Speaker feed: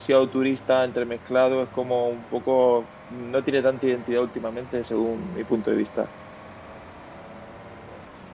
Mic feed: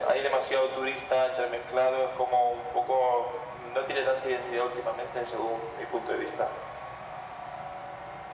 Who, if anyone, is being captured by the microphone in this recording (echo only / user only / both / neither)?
echo only